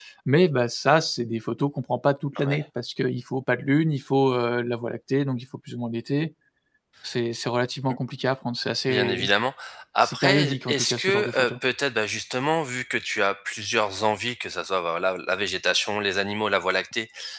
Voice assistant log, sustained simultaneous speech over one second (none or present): present